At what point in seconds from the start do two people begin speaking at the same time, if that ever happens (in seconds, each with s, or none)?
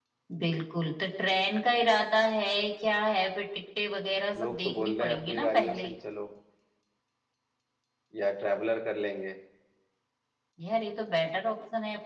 4.3 s